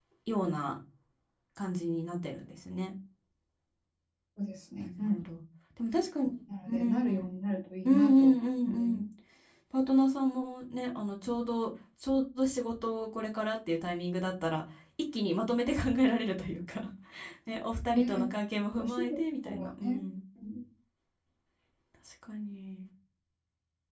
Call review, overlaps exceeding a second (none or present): present